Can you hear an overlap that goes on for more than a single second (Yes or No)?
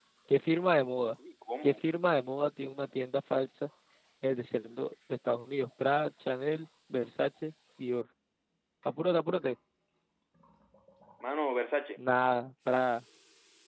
No